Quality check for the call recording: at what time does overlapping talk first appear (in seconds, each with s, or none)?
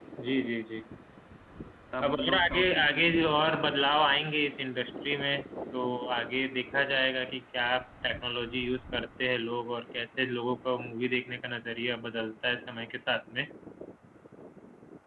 2.0 s